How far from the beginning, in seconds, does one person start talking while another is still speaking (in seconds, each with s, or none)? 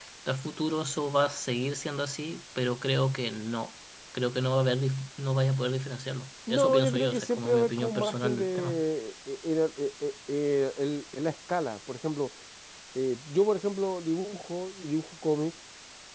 6.5 s